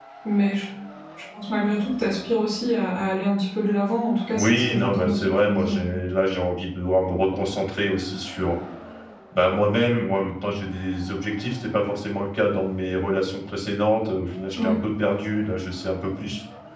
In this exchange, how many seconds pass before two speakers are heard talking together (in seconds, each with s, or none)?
4.3 s